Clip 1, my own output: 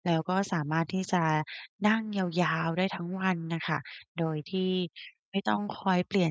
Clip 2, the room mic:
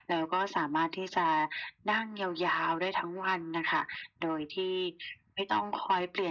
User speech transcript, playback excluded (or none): none